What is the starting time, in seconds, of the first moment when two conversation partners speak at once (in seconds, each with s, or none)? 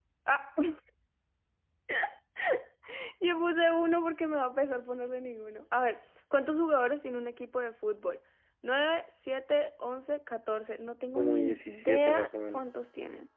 11.2 s